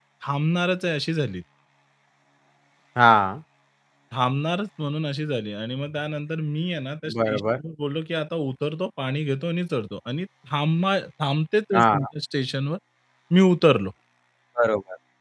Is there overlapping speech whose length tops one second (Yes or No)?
No